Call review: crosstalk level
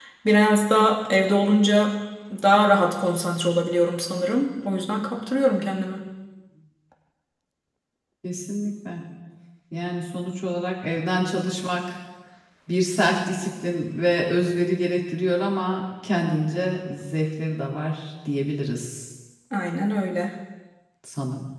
none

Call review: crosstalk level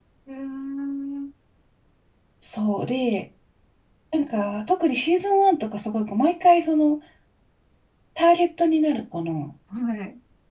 none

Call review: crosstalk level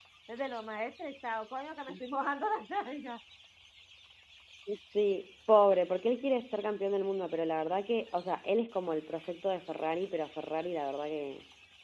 none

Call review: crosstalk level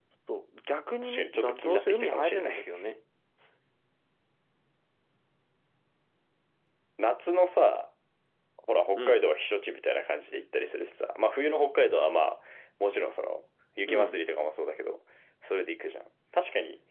present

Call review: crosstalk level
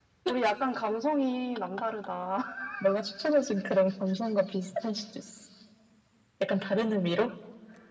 none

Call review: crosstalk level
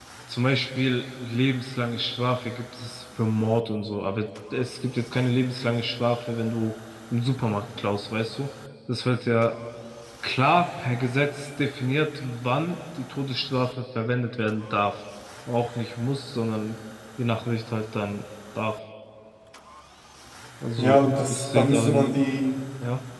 present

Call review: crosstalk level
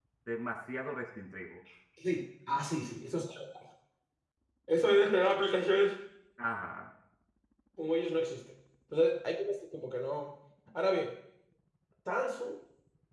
none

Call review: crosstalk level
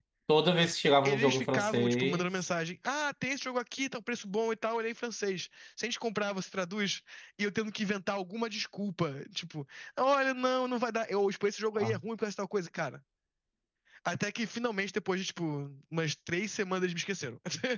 present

